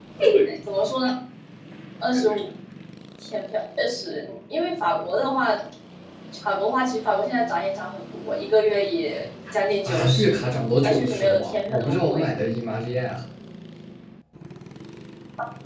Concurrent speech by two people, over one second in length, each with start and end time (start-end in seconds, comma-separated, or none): 10.8-12.3